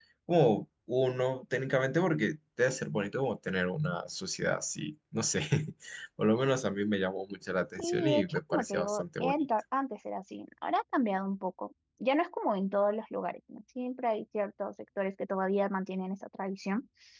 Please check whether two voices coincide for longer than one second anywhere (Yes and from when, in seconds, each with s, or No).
Yes, from 7.8 s